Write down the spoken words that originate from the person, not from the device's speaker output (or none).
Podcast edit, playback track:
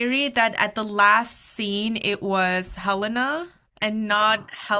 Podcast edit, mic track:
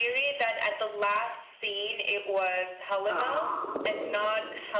Oh,